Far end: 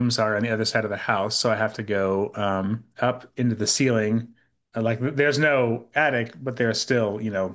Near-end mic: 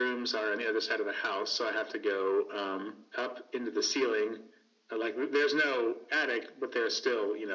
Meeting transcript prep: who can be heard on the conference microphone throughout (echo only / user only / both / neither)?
echo only